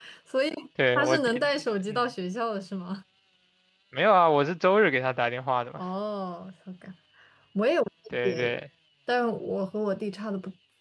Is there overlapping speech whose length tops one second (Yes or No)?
No